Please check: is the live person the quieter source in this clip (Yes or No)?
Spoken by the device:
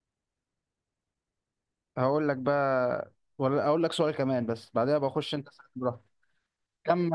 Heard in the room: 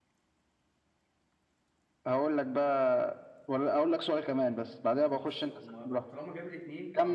Yes